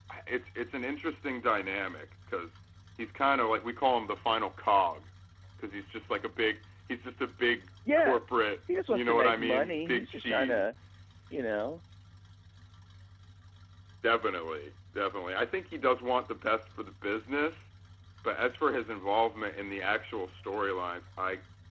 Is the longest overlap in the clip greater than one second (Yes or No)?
Yes